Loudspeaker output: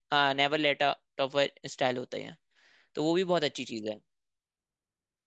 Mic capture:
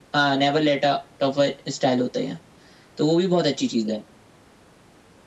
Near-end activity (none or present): none